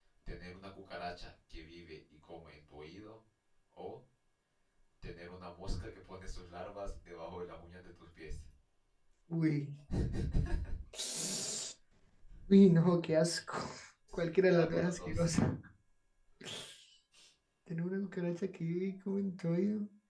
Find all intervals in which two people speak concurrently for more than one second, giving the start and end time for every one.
14.1-15.3

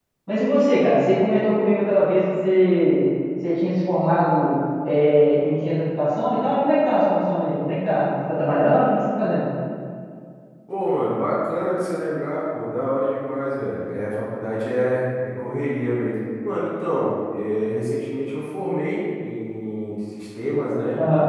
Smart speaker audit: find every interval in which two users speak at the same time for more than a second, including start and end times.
none

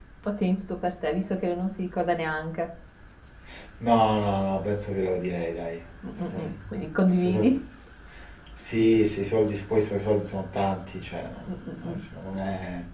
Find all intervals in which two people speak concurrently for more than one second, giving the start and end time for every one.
none

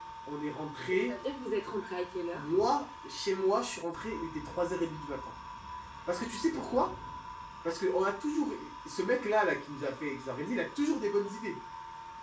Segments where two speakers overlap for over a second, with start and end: none

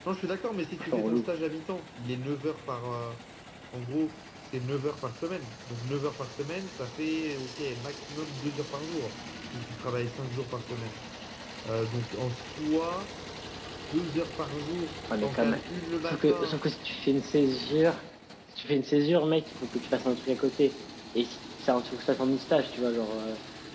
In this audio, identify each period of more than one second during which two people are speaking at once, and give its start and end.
none

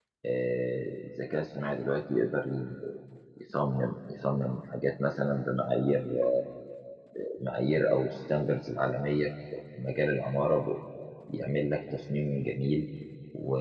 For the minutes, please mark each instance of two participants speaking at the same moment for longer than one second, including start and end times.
none

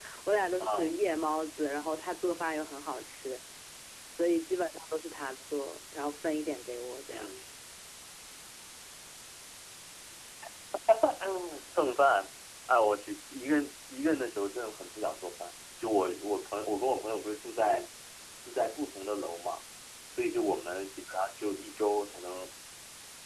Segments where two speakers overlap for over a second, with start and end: none

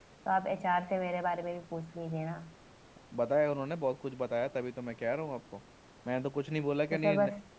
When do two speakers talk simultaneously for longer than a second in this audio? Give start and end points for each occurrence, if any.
none

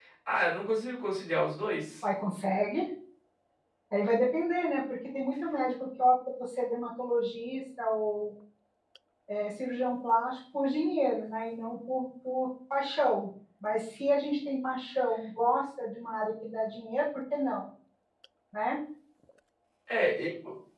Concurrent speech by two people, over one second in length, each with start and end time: none

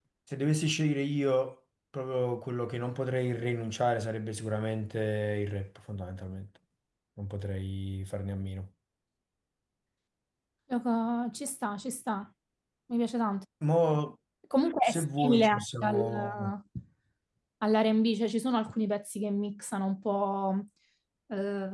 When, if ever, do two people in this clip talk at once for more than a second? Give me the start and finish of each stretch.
14.8-16.5

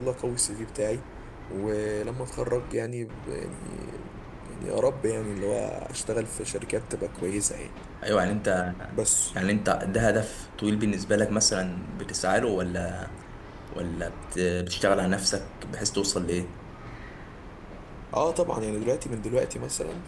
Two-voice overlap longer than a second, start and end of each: none

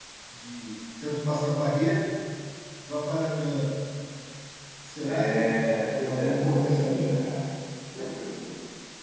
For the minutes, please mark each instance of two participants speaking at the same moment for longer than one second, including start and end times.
5.0-7.3

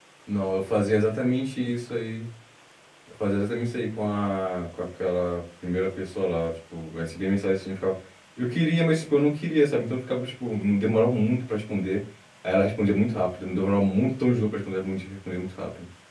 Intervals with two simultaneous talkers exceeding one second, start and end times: none

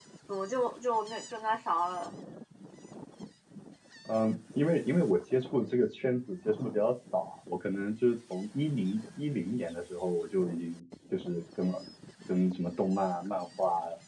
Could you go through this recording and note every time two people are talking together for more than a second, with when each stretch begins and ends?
none

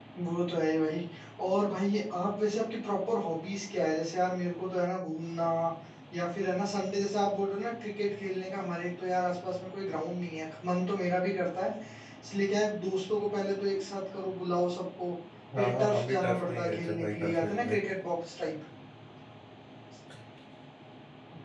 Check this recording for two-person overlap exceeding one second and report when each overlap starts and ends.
15.6-17.8

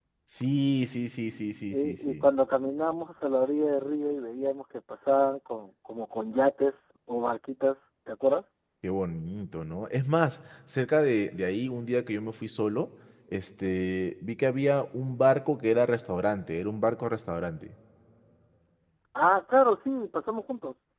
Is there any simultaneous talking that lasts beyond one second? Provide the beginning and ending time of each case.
none

